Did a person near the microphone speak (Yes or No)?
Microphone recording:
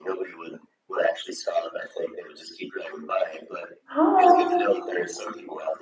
Yes